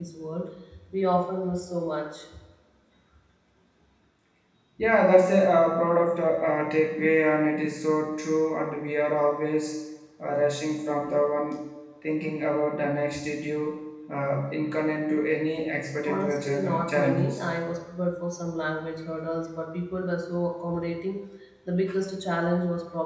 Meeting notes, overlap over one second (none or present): present